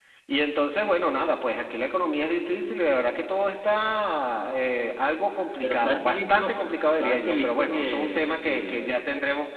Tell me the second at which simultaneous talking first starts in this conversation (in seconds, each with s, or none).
5.6 s